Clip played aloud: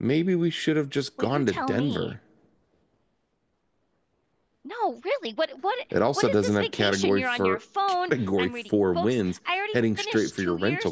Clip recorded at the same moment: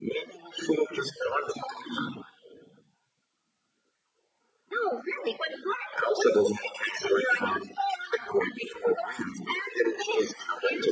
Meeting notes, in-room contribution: none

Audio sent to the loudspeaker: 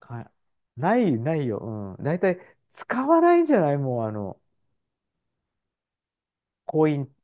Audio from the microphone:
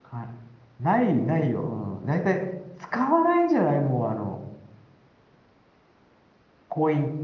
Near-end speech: none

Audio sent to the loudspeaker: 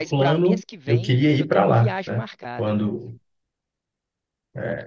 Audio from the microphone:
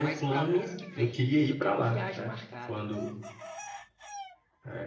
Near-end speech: none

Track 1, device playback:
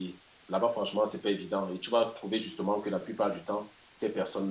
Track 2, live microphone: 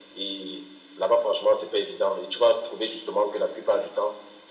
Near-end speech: none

